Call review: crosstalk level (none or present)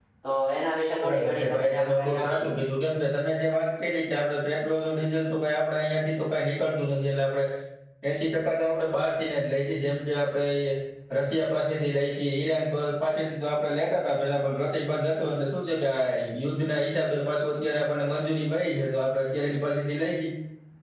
present